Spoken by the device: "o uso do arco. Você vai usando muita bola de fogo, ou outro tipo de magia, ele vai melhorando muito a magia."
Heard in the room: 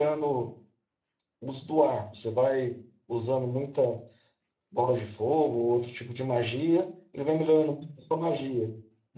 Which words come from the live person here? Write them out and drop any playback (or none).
none